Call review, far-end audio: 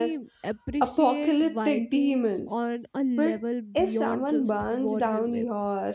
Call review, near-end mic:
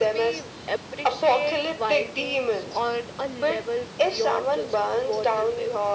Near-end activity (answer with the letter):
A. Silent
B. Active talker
A